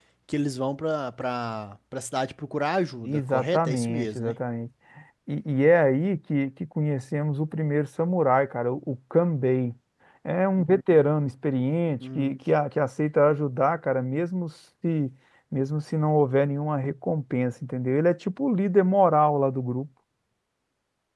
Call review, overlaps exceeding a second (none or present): present